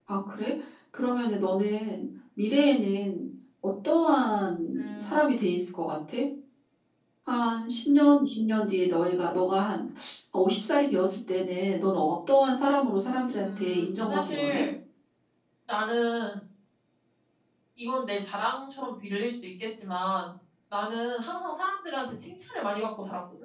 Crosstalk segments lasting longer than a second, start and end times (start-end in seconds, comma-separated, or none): 13.4-14.6